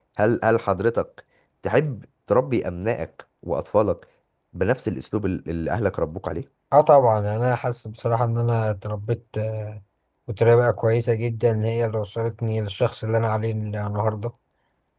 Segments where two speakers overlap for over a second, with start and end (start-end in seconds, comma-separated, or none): none